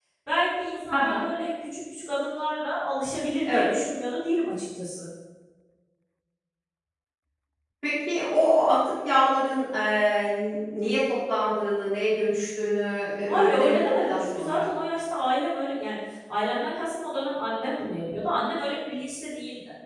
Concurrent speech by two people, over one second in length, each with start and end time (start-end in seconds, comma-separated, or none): 13.3-14.6